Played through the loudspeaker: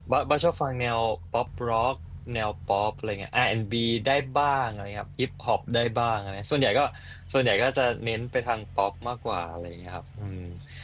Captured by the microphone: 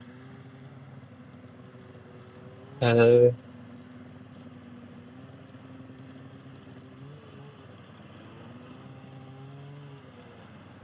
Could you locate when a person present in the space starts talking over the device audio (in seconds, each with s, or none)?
2.8 s